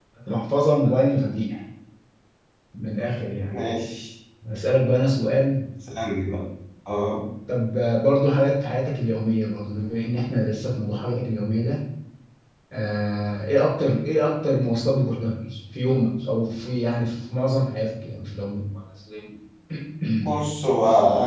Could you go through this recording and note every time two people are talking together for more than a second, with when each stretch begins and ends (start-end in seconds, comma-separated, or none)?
none